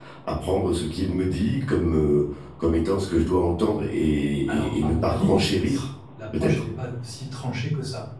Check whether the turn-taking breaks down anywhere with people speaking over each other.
Yes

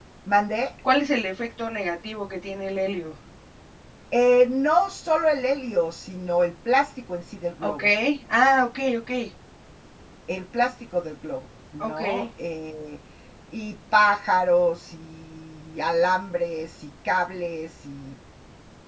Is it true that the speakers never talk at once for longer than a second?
Yes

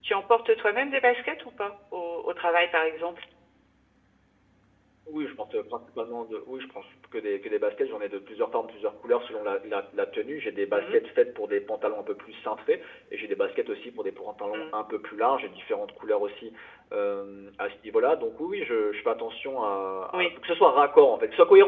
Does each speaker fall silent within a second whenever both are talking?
Yes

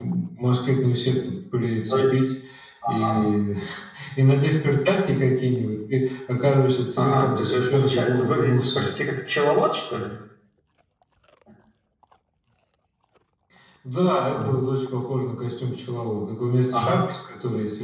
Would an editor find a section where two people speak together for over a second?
Yes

